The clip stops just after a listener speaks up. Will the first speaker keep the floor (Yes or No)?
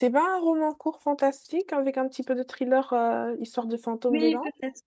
No